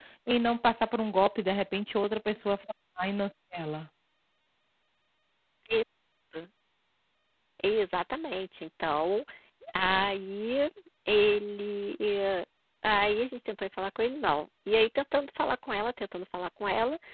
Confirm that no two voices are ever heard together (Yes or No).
Yes